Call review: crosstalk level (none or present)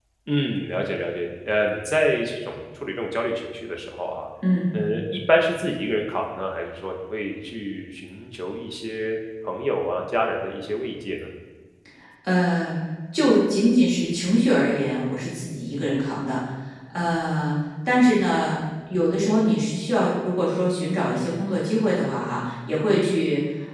none